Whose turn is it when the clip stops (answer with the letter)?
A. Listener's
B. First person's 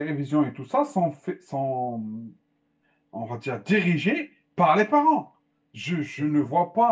B